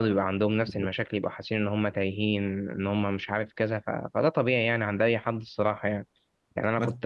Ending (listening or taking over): listening